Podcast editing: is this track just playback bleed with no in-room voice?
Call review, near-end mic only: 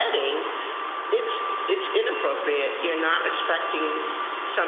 Yes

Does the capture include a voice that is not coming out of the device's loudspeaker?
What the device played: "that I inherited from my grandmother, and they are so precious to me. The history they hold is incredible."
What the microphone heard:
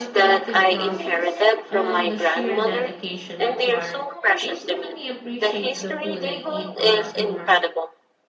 Yes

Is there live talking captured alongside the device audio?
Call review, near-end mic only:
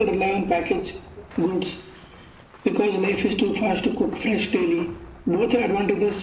No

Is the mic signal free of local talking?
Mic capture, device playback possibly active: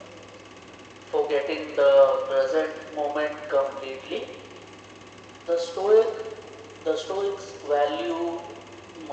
Yes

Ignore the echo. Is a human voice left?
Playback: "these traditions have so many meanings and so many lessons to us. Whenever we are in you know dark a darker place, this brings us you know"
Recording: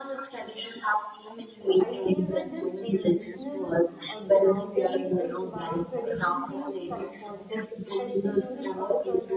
Yes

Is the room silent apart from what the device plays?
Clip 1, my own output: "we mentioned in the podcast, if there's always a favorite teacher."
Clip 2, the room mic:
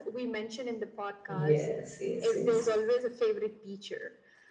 No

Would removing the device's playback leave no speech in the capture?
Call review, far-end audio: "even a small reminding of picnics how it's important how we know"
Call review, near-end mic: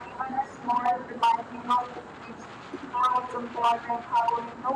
Yes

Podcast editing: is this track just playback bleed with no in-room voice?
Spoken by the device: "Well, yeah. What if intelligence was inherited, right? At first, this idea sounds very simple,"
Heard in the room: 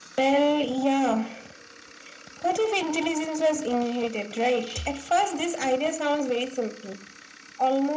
Yes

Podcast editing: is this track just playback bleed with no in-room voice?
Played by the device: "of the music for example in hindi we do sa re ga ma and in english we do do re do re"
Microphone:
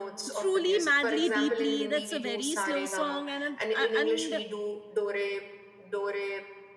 No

